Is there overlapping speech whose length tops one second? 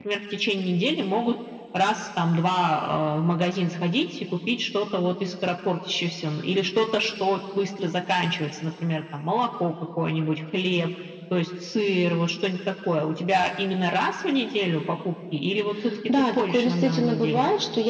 Yes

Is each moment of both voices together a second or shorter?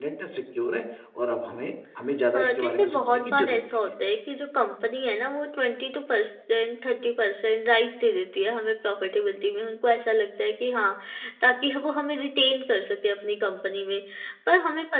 No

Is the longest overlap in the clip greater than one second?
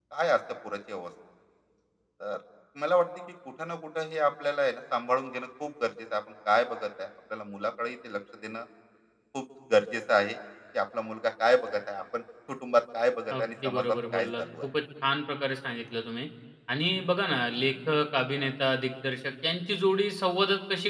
Yes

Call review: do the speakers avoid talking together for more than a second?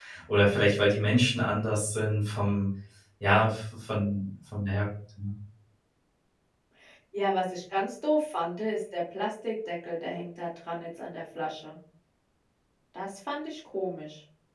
Yes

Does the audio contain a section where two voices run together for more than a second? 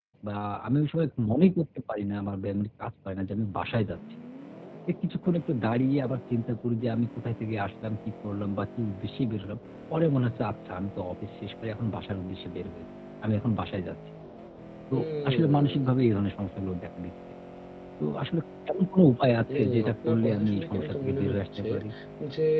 Yes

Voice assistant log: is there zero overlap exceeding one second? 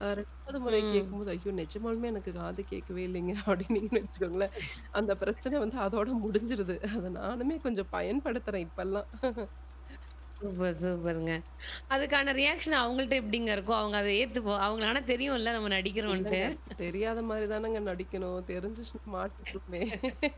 Yes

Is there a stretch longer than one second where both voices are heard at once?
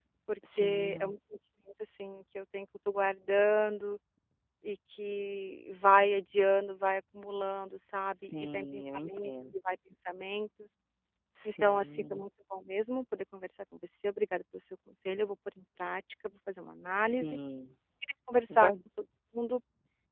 Yes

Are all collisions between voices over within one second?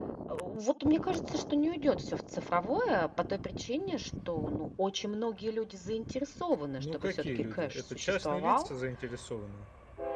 No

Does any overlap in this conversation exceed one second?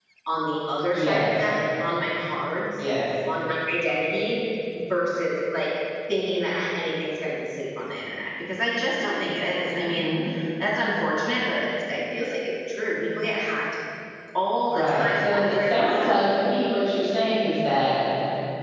Yes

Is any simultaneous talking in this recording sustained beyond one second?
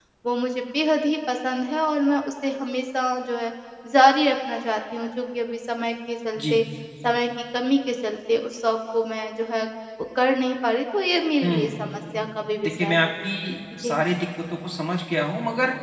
No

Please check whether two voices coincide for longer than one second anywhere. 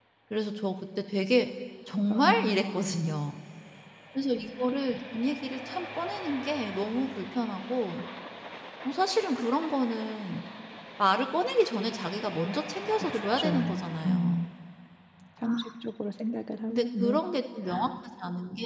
Yes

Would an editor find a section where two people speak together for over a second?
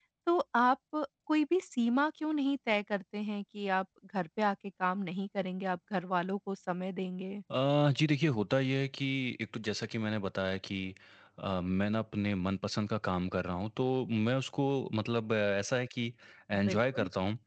No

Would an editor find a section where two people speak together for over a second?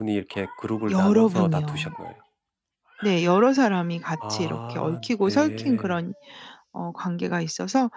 Yes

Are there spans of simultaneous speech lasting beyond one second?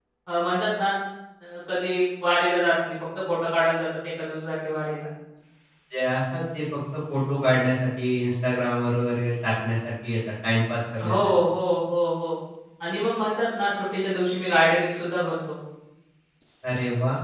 No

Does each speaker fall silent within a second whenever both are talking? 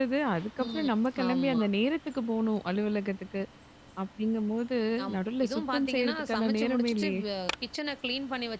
No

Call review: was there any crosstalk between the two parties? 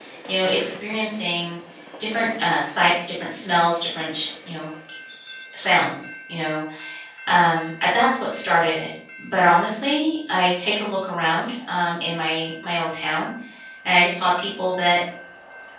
No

